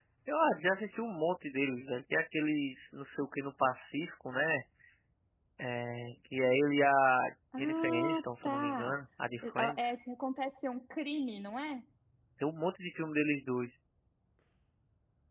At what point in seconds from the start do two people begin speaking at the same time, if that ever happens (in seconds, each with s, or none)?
7.6 s